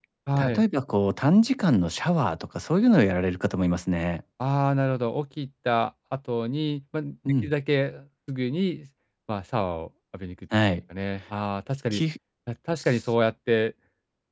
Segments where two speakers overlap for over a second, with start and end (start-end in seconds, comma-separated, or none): none